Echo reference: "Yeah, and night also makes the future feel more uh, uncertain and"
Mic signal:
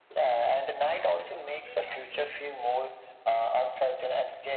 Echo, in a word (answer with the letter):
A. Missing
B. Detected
B